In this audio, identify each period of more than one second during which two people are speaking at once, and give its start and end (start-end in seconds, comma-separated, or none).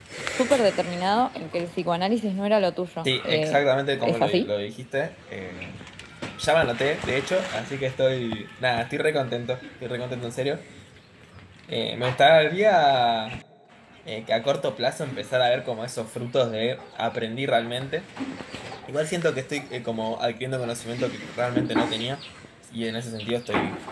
none